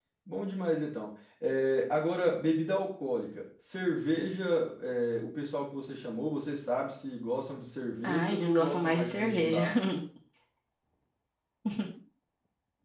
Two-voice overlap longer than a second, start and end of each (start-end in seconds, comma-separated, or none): 8.0-9.6